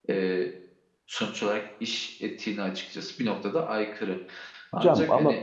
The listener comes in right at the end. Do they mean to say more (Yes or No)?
Yes